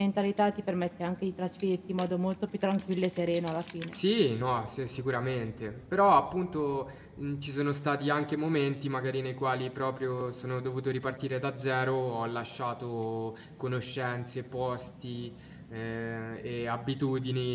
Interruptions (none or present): none